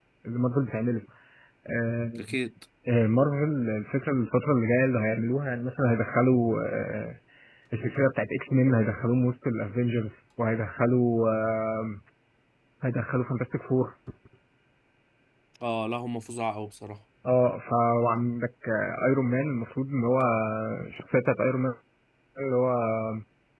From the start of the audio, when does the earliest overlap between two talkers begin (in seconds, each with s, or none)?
none